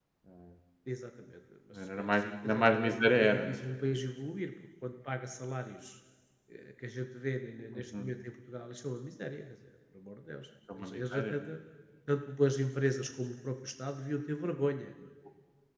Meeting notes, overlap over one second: present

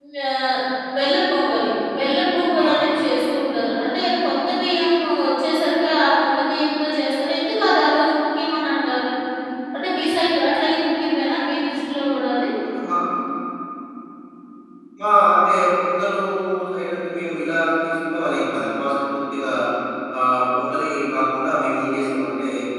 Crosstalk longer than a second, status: none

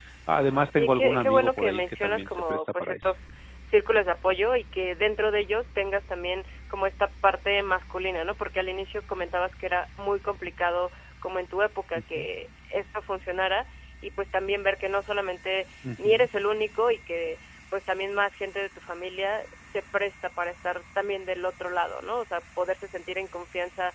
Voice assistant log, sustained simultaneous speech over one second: present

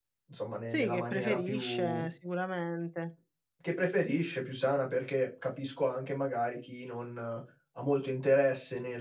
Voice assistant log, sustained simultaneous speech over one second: present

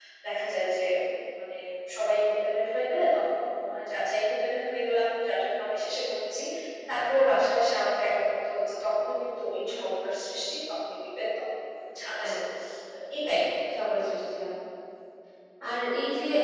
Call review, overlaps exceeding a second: none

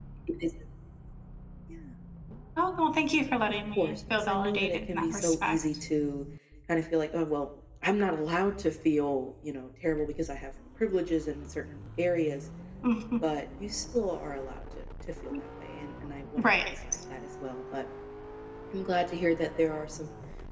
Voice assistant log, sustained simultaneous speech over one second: present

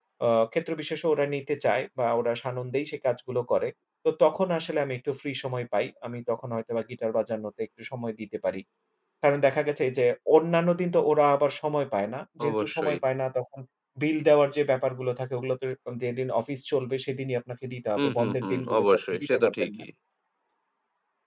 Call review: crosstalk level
present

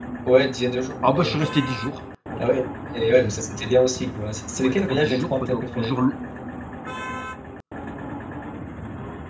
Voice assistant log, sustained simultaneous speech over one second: present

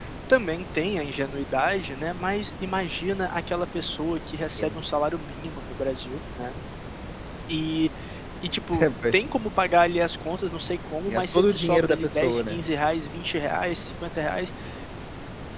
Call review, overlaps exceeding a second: present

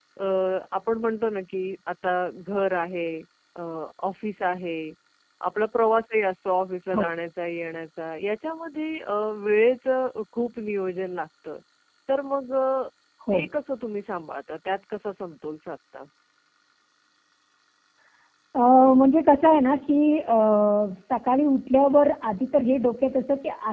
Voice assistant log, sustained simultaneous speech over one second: none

